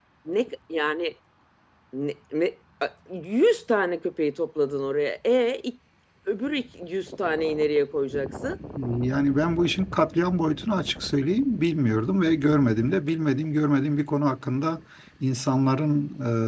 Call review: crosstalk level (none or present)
none